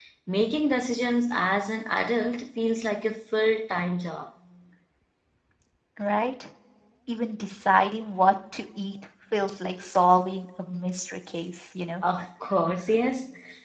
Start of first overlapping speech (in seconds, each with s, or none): none